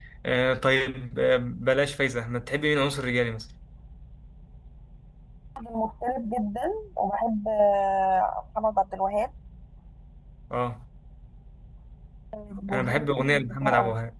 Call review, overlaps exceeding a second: present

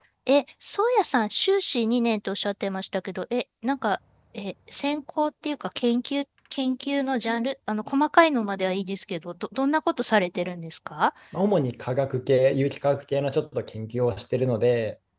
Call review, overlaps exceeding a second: none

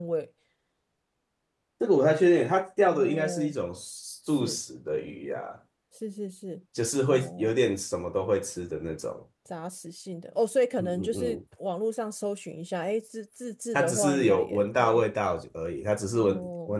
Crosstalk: present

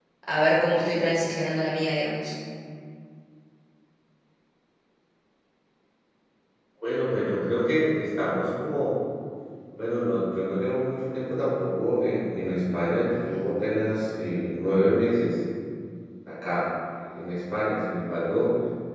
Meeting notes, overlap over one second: none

